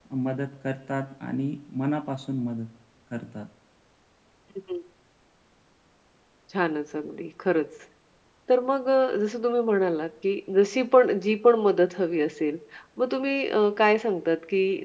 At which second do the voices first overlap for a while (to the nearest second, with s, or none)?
none